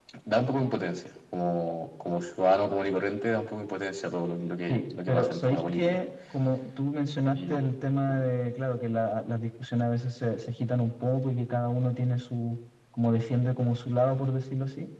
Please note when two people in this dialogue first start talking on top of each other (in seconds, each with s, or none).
4.7 s